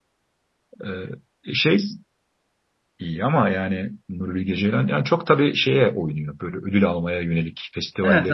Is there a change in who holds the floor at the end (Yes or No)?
Yes